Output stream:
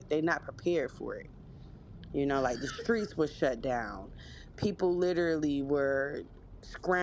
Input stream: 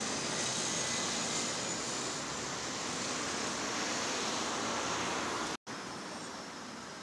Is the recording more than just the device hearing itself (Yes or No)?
No